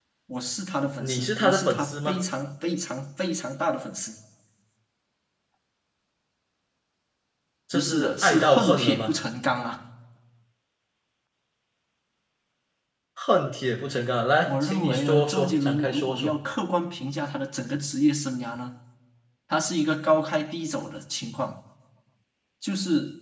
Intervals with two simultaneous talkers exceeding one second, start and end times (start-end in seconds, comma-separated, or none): 1.0-2.2, 7.7-9.1, 14.4-16.4